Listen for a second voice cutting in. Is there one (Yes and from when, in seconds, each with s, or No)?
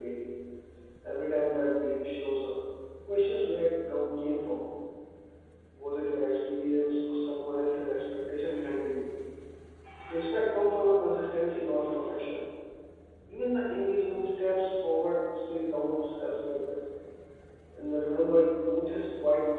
No